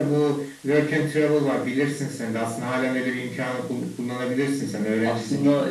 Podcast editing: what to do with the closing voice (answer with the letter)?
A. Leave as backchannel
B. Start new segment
B